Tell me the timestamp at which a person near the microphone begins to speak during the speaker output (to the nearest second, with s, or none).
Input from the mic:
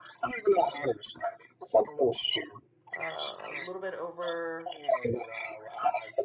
3 s